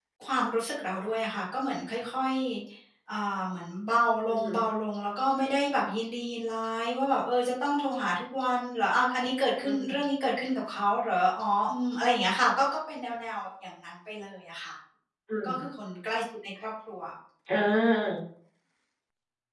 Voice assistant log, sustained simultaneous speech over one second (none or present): none